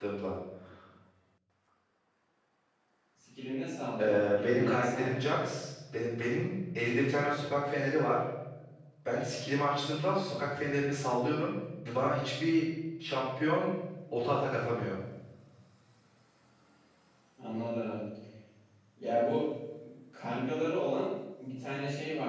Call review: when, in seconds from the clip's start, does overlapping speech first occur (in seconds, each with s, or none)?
4.0 s